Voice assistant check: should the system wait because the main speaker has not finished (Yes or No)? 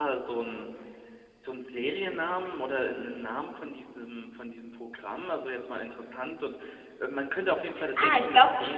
No